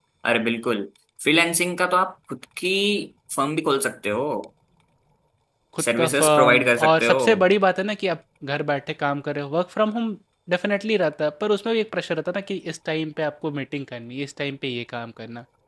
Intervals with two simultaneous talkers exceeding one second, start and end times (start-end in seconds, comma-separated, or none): 6.0-7.2